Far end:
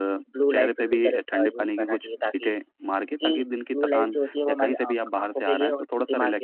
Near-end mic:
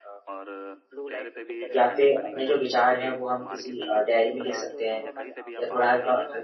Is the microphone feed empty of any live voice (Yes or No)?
No